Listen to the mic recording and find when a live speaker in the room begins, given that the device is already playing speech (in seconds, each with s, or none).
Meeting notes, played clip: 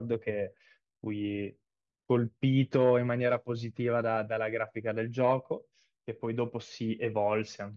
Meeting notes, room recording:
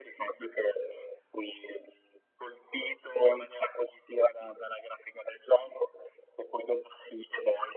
none